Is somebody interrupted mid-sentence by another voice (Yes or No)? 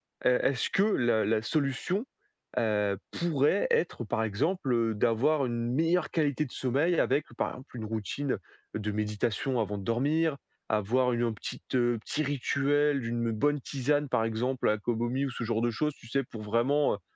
No